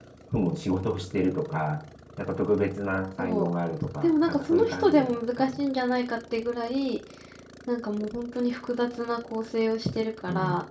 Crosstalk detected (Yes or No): Yes